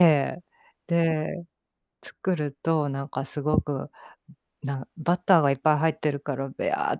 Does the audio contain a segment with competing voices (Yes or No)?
No